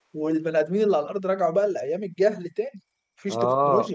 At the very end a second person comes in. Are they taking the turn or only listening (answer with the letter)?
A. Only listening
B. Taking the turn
B